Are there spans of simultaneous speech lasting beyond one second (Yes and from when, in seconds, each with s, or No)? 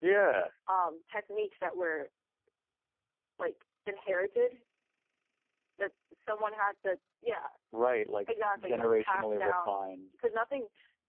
Yes, from 8.5 s